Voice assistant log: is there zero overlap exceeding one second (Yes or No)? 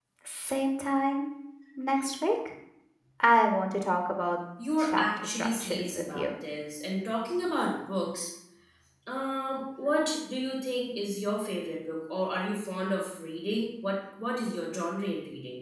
No